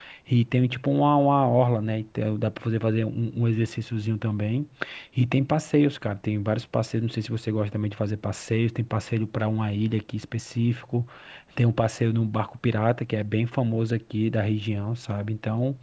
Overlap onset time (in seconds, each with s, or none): none